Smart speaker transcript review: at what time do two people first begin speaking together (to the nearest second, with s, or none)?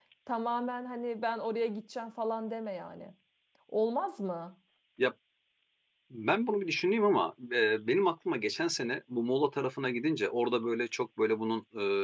none